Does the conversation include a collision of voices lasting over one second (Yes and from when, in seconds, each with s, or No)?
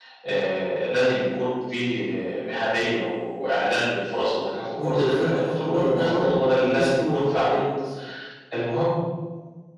Yes, from 4.7 s